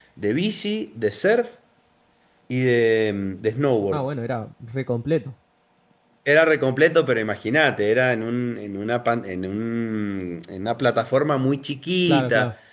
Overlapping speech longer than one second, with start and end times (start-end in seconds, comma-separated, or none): none